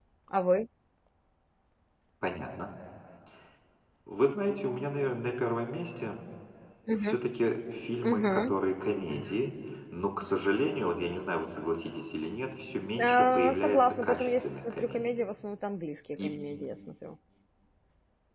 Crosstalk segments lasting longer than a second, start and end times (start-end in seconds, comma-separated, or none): 13.0-15.0